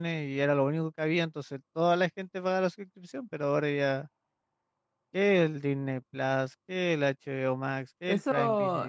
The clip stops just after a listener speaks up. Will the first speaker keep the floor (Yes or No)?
No